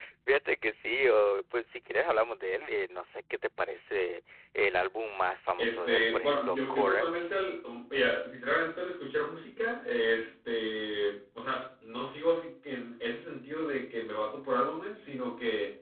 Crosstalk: present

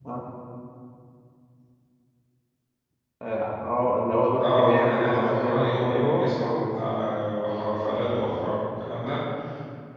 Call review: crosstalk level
present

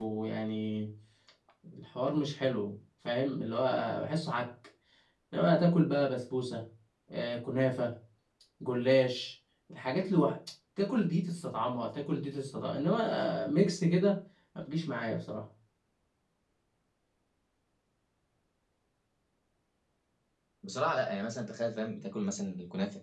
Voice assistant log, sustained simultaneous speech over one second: none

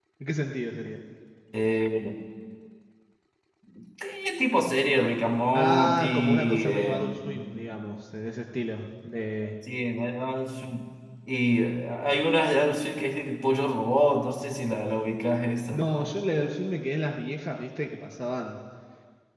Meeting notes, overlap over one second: present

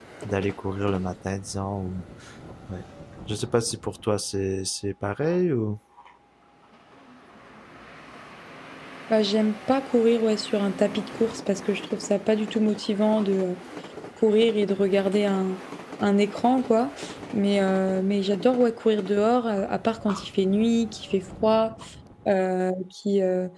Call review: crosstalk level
none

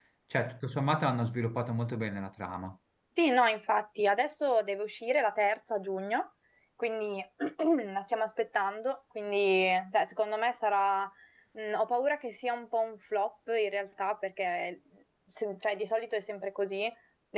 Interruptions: none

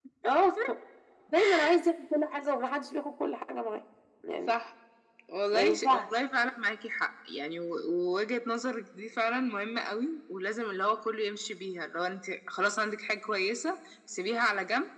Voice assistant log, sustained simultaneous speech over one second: none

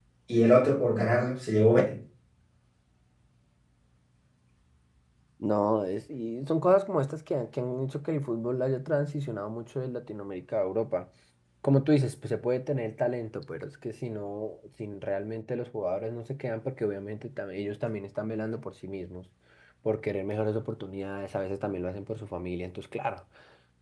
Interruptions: none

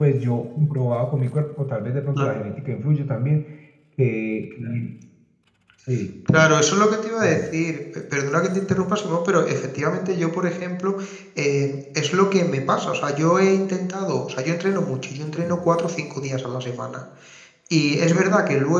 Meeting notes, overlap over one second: none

